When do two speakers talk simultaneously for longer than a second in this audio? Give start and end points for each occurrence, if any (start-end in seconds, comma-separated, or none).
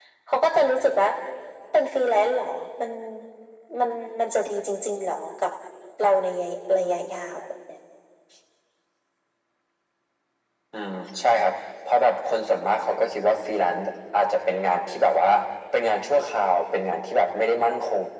none